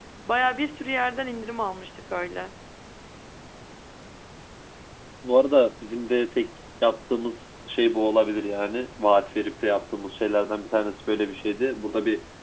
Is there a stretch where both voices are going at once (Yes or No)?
No